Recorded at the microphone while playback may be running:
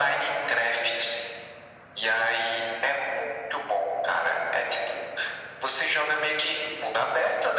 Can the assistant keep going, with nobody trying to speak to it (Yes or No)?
Yes